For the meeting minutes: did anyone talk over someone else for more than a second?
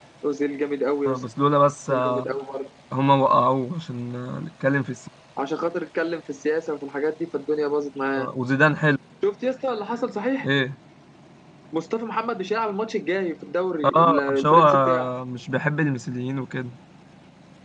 Yes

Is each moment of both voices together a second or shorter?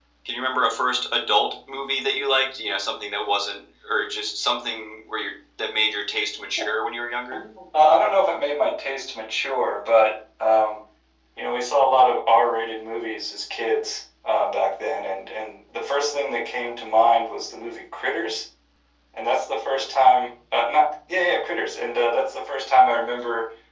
Yes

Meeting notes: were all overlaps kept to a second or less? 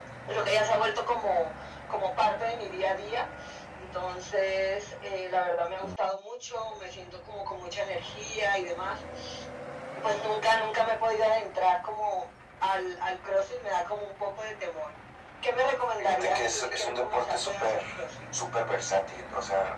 No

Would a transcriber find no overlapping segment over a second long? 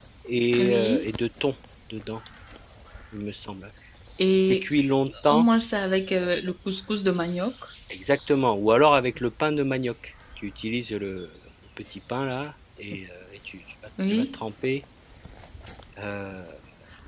Yes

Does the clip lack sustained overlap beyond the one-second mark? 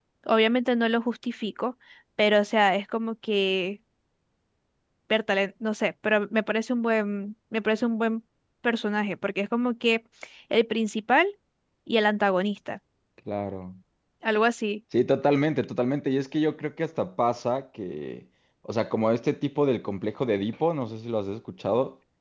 Yes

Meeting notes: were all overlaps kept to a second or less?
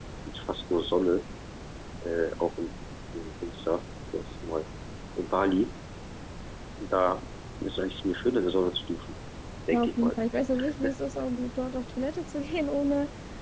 Yes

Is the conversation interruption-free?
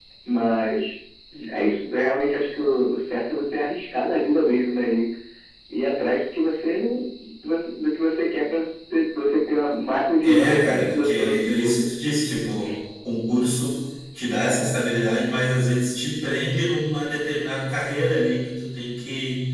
No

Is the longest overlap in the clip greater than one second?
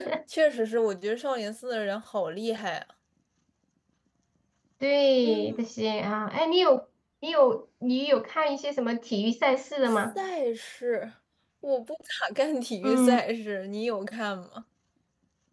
No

